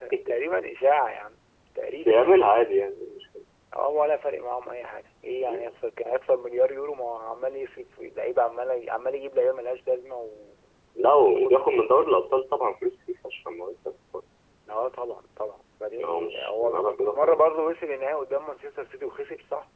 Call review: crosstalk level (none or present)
present